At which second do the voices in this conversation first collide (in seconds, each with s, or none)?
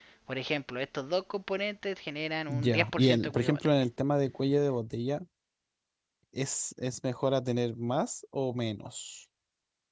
2.5 s